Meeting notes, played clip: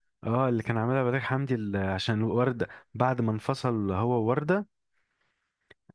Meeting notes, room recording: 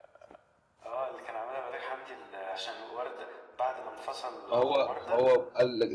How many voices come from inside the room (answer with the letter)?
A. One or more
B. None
A